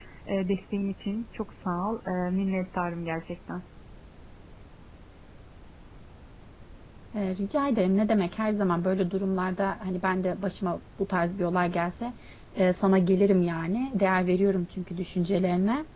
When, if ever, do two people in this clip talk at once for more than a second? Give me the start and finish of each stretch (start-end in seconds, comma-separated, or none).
none